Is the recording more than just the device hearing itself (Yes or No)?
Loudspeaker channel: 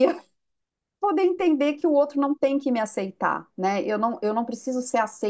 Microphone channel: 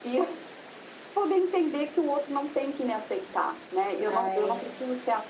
Yes